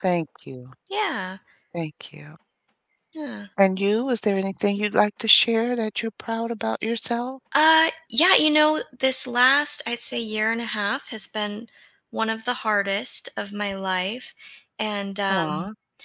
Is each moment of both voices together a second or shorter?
Yes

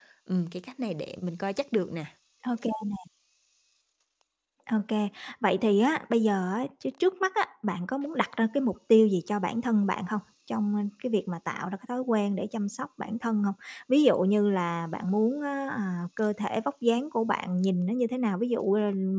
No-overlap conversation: Yes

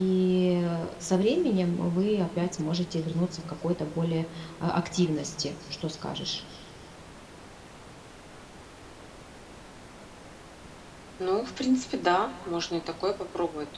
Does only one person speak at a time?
Yes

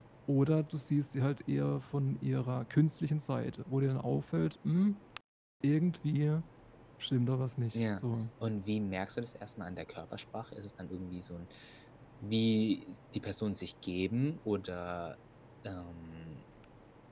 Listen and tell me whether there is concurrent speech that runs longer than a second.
No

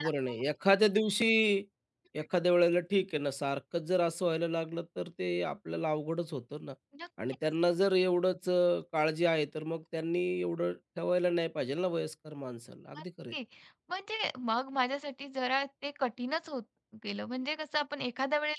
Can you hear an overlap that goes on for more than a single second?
No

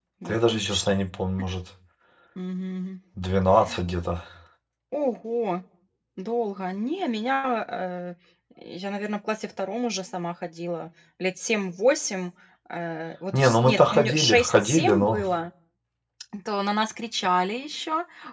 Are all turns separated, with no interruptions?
No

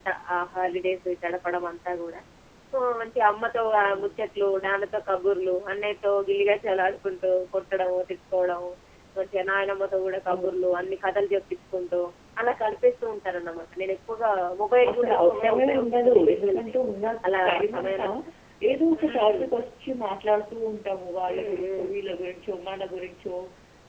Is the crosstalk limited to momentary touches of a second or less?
No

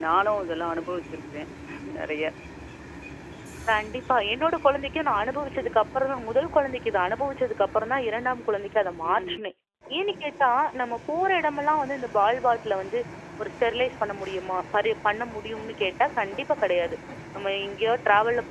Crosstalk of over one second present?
No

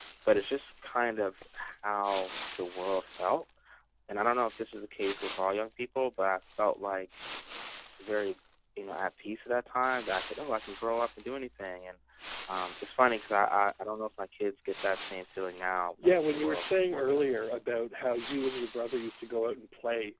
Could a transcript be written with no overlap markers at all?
No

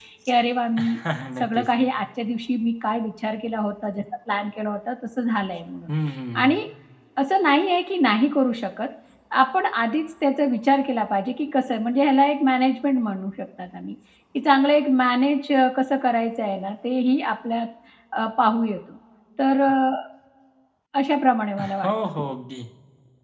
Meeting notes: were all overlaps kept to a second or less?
Yes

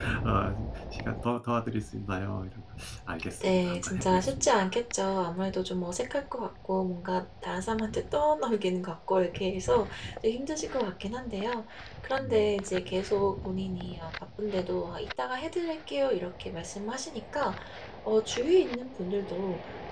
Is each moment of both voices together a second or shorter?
No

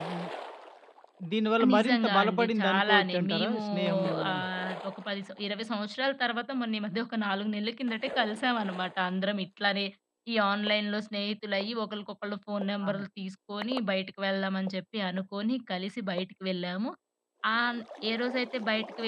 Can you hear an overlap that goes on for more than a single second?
Yes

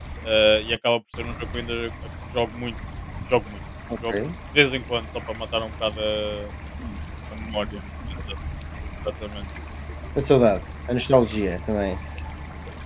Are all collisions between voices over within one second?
Yes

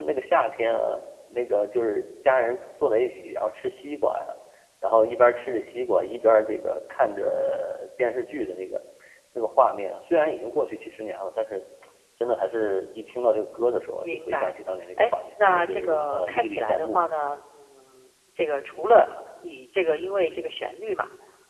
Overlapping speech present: Yes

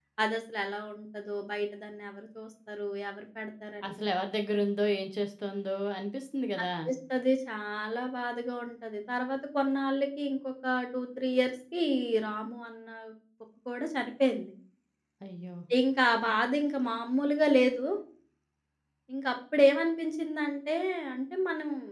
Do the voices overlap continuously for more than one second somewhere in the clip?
No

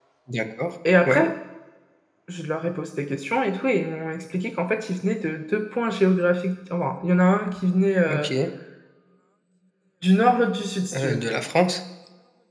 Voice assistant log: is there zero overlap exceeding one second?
Yes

